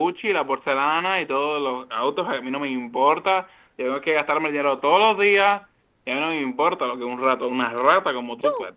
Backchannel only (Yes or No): No